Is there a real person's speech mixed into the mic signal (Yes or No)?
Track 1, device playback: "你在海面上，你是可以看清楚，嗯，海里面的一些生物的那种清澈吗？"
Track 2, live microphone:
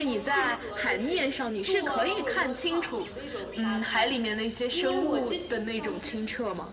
Yes